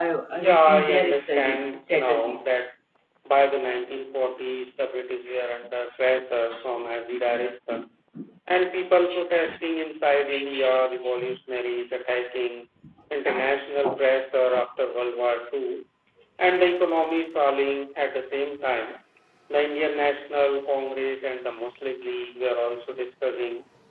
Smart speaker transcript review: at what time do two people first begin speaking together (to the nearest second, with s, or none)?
1 s